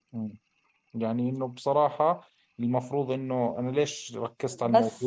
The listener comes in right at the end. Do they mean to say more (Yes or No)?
No